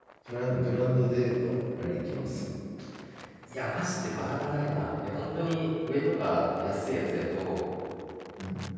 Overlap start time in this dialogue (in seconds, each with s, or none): none